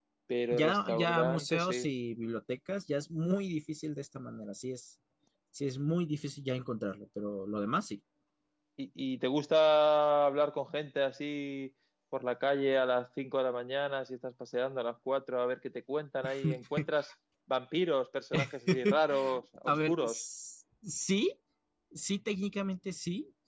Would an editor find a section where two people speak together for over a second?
Yes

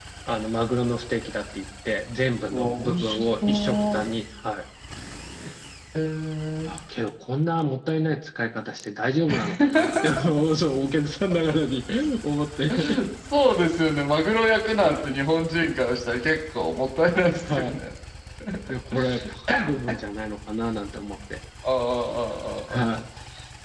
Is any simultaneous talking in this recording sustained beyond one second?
Yes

